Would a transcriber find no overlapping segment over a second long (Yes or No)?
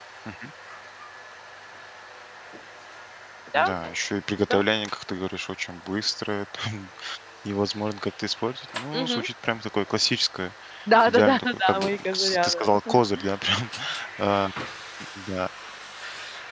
No